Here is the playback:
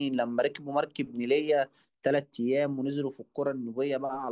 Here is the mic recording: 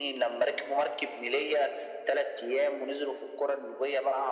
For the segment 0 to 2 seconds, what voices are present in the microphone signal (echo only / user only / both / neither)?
echo only